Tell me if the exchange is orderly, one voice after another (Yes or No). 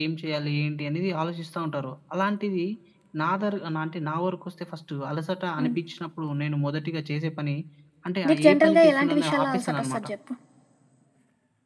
No